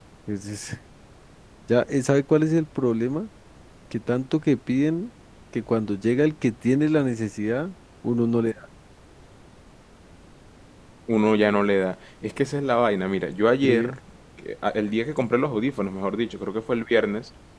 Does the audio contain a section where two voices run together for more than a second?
No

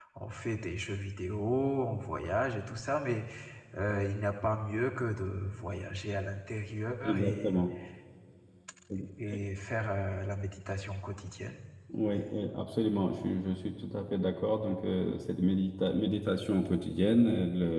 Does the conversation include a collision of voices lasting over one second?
No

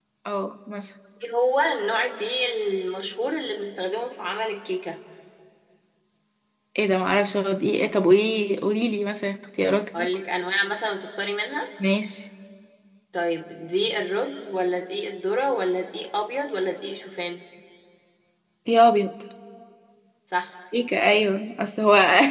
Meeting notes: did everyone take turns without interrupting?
Yes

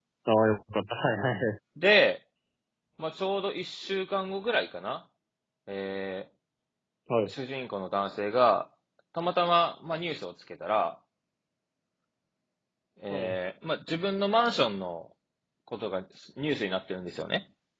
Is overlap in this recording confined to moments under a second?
Yes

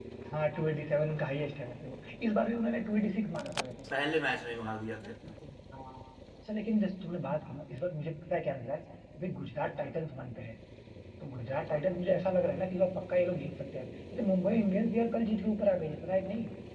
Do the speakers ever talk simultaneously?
No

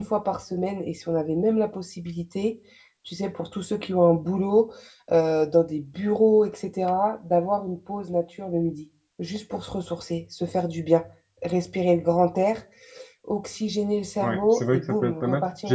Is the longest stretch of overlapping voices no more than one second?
No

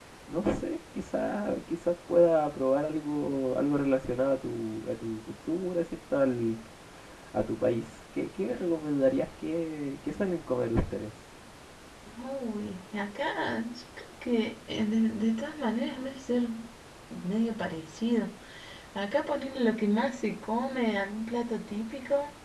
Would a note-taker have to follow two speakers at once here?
No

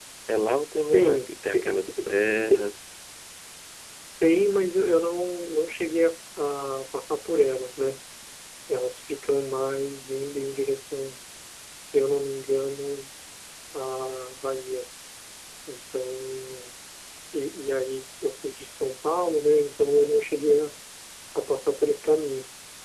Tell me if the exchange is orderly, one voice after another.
No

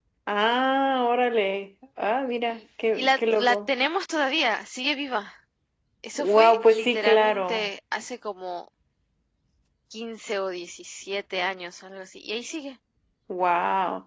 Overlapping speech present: Yes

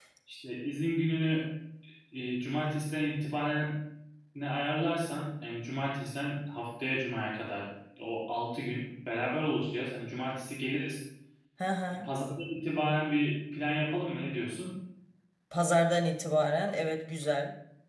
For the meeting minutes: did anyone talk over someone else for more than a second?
No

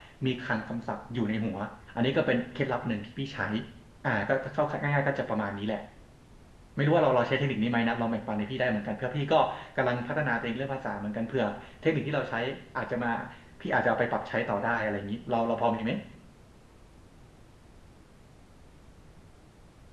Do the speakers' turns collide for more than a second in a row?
No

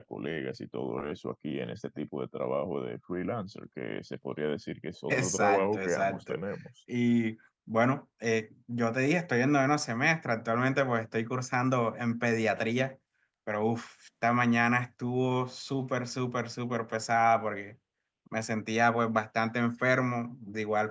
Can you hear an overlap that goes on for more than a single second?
Yes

